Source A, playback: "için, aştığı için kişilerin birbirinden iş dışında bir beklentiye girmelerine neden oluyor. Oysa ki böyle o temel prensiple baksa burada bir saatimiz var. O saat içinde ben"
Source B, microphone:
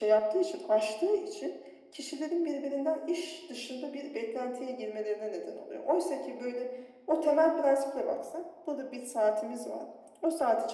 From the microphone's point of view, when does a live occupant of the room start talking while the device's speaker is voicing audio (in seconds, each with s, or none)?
none